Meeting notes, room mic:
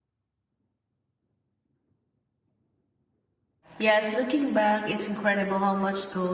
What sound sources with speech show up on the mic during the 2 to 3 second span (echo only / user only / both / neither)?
neither